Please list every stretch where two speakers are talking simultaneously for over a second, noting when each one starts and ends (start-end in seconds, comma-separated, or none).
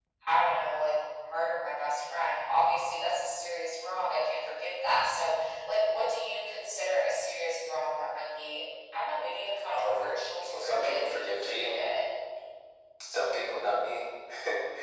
10.5-11.8